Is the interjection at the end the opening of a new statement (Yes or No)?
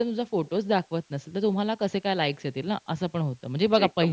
No